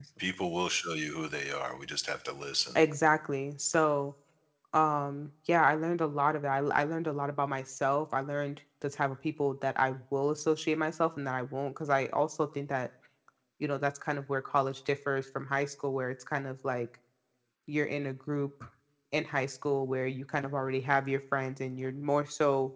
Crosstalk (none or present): none